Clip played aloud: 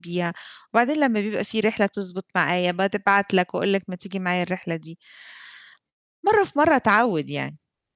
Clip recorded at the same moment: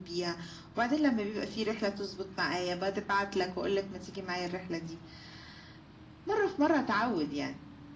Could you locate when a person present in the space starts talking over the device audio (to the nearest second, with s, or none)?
none